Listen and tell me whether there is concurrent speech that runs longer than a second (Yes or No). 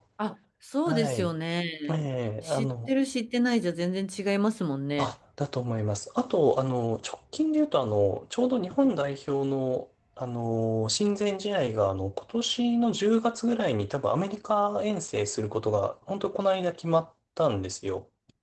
No